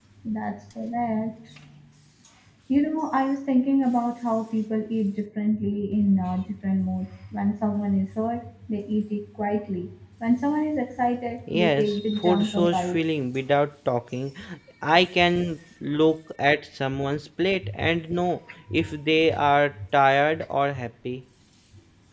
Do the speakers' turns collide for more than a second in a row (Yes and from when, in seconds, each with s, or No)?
Yes, from 11.5 s